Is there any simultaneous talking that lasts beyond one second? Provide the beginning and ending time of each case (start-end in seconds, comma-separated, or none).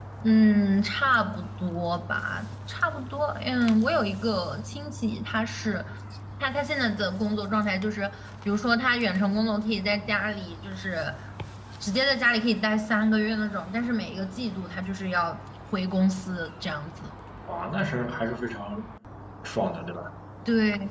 none